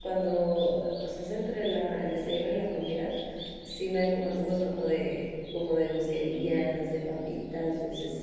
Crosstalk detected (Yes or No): No